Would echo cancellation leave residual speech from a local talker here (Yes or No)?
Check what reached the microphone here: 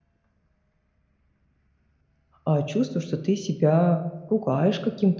Yes